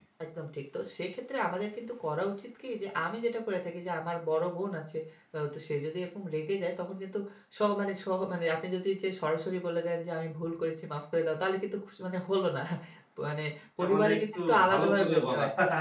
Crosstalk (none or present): present